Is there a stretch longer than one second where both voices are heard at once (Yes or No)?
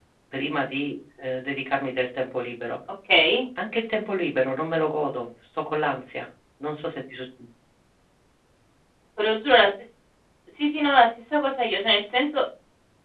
No